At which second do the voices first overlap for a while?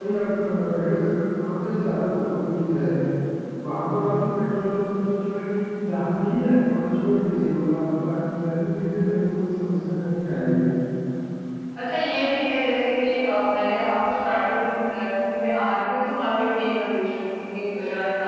none

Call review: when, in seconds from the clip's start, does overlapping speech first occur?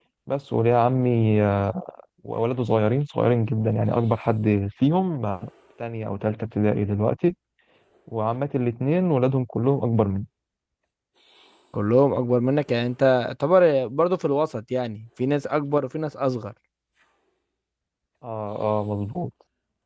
none

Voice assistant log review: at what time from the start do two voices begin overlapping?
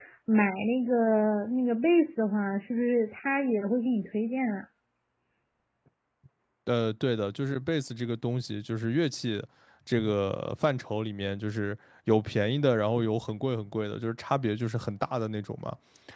none

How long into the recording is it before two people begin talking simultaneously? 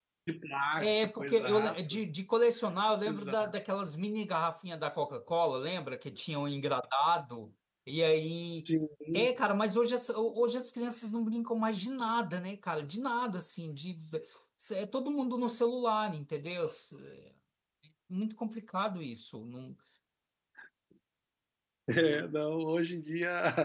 0.8 s

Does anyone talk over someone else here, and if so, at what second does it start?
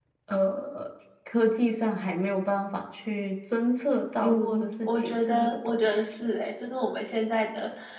4.2 s

